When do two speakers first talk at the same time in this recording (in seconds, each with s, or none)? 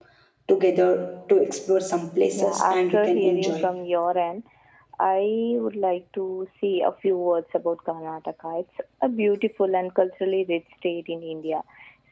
2.4 s